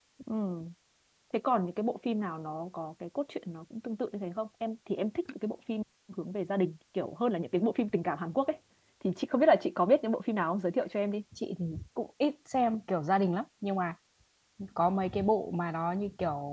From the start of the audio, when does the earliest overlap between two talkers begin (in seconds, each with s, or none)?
none